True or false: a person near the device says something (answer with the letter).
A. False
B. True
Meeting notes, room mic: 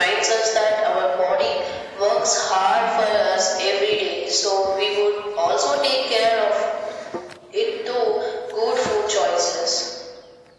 A